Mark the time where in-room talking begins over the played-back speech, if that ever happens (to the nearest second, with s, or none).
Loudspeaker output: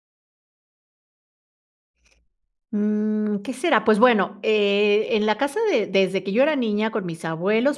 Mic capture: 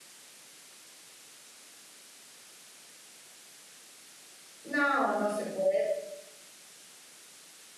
5 s